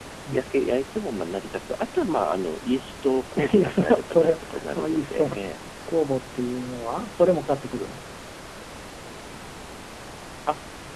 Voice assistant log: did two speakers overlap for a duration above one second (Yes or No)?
Yes